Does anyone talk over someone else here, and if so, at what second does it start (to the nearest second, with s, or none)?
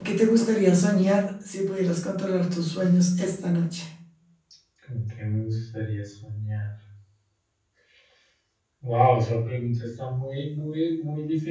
none